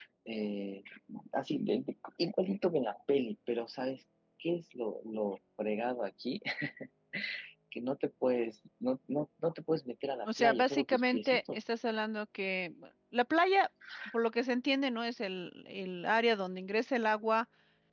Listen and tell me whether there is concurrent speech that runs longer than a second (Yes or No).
Yes